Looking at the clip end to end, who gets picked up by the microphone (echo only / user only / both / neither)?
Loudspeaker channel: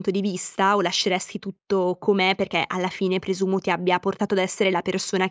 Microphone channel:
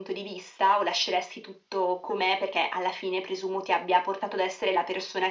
echo only